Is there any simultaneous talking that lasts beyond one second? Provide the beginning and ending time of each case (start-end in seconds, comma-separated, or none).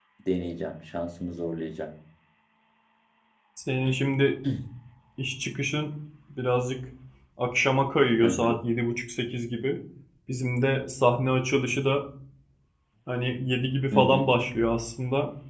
none